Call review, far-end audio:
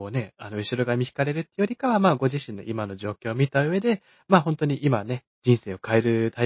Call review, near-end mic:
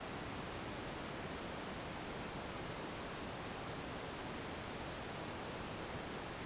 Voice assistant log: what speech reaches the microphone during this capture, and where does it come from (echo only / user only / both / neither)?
neither